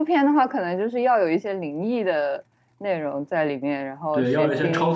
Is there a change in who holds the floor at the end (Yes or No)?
Yes